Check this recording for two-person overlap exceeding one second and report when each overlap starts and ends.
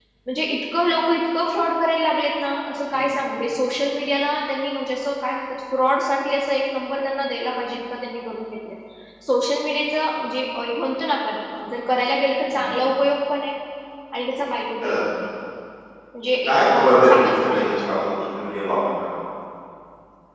16.4-18.1

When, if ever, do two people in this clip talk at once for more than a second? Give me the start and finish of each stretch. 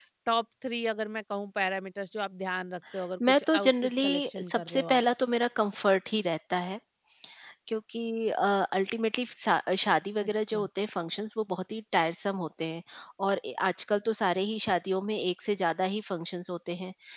3.3-5.0

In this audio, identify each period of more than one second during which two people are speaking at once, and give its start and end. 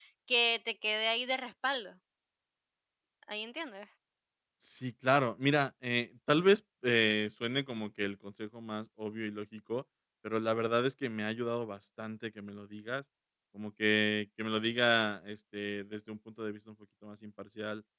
none

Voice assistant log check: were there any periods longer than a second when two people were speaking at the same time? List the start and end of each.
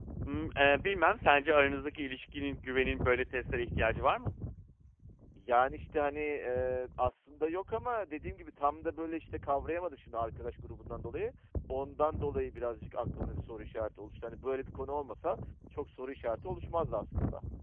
none

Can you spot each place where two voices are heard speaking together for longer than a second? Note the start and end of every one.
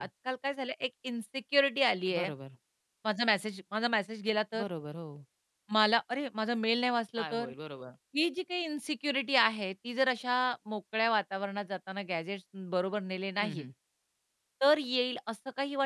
none

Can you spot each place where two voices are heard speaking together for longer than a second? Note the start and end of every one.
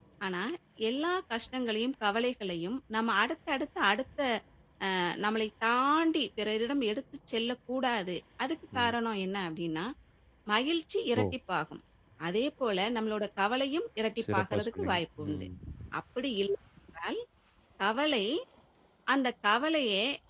14.2-15.5

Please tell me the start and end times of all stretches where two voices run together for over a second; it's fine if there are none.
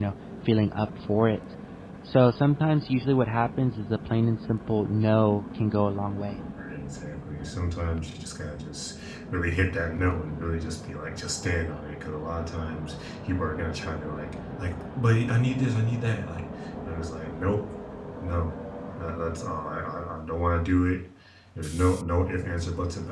none

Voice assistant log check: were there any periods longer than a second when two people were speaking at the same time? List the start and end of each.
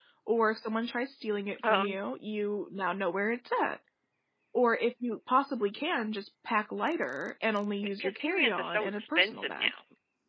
8.0-9.7

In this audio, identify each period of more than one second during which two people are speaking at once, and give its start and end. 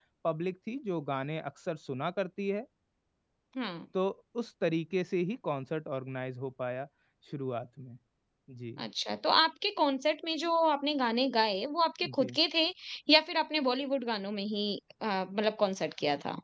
none

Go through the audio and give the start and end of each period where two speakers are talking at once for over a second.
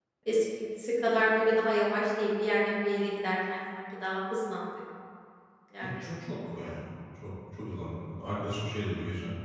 none

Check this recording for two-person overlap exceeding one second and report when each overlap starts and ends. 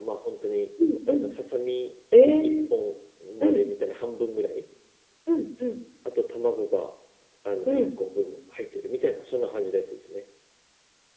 none

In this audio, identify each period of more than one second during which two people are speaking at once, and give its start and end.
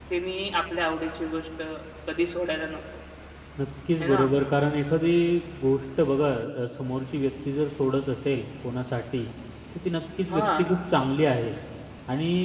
none

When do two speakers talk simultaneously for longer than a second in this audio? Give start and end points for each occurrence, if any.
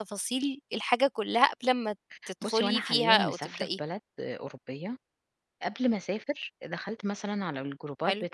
2.4-3.7

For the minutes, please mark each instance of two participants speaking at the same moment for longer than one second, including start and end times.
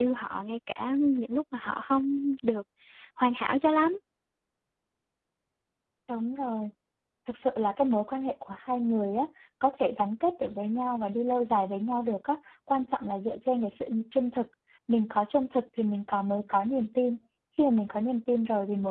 none

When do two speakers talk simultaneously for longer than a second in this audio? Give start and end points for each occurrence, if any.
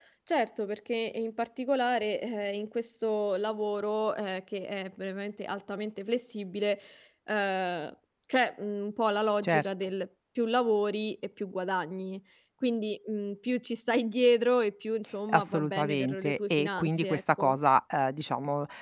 15.3-17.5

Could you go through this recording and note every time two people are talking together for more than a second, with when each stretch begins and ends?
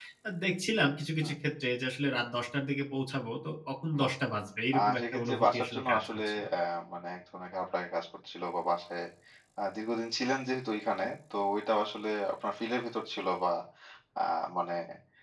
4.8-6.4

